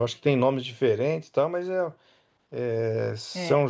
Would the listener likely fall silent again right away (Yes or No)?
Yes